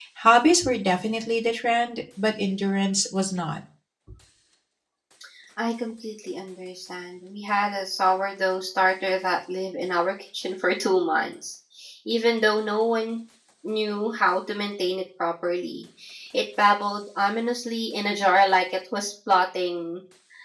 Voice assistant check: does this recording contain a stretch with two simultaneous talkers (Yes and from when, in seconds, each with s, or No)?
No